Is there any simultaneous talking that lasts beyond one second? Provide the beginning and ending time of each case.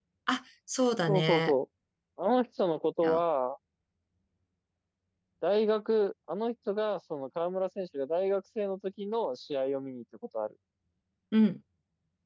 none

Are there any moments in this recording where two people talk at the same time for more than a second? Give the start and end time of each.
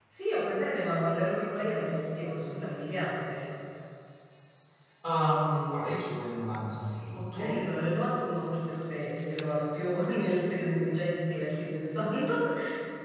none

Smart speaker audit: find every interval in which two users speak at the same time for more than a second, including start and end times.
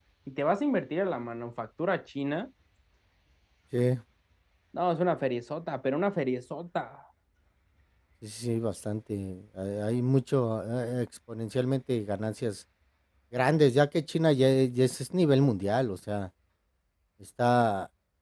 none

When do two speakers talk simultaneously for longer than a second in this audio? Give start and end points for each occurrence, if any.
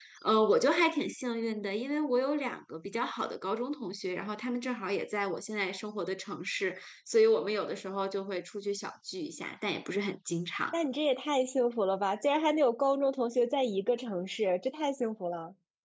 none

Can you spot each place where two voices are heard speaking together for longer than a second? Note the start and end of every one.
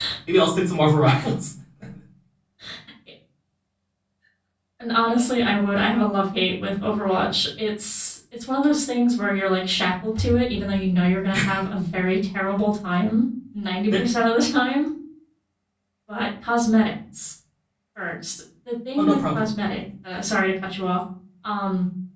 none

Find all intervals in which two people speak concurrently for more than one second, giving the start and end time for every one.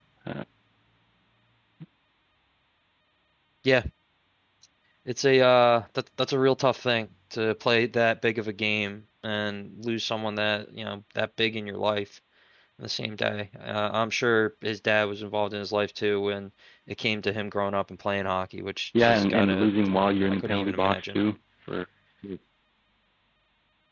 19.0-21.2

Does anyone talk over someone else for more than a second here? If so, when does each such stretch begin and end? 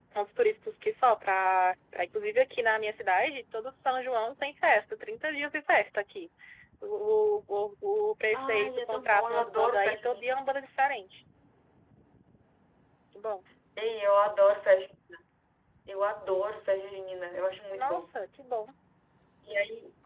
8.3-10.4

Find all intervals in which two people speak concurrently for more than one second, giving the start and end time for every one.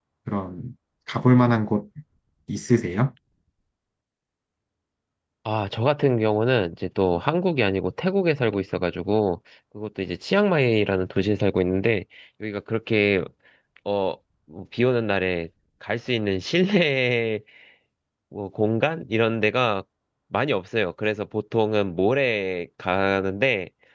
none

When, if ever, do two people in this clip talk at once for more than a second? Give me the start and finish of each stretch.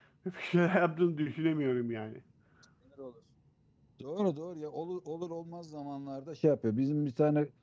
none

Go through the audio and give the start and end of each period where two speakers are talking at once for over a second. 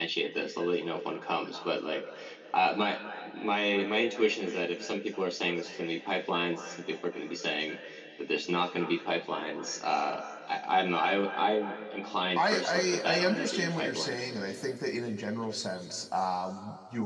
12.4-14.1

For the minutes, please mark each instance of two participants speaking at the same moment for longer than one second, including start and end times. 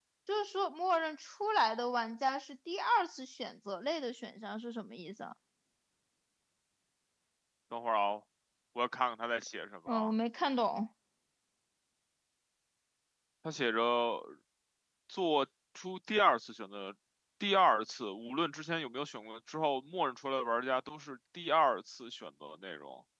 none

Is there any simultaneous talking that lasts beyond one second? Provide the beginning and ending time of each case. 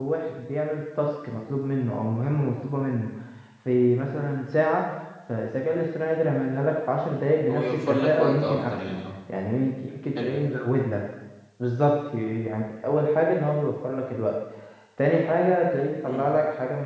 7.5-9.0

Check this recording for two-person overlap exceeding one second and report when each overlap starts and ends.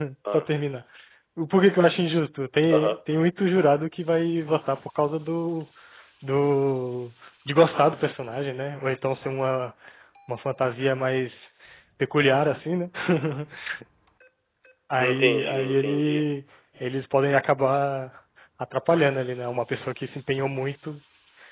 15.0-16.2

